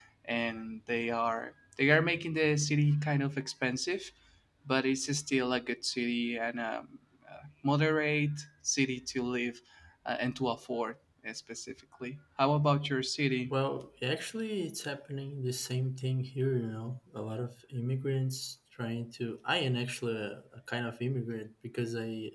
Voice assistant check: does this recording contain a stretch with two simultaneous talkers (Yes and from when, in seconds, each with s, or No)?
No